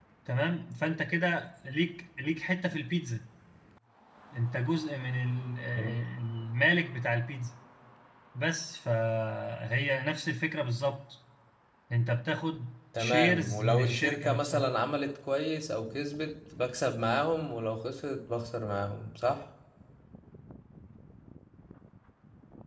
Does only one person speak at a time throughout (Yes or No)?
No